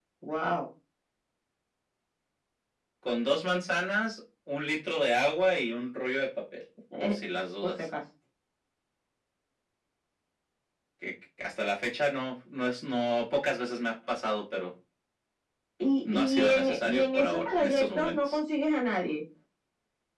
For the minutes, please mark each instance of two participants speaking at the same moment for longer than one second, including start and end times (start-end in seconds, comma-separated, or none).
16.1-18.4